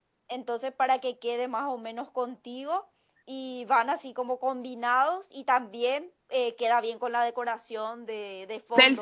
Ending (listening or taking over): taking over